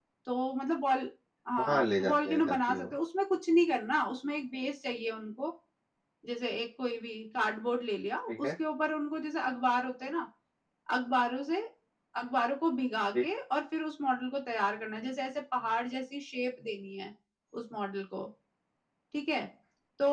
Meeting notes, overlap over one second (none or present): present